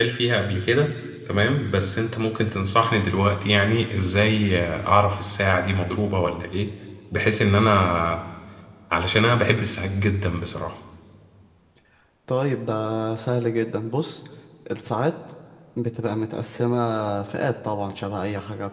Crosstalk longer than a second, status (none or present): none